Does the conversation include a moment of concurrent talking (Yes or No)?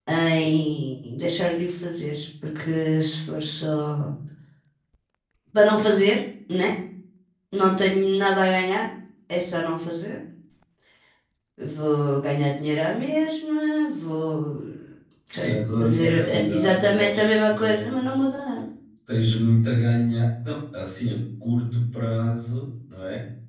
Yes